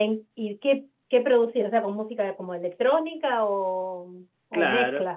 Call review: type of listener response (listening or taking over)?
taking over